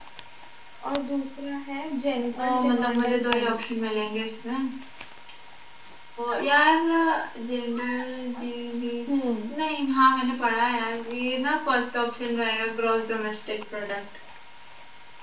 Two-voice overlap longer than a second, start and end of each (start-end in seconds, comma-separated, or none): 2.4-3.7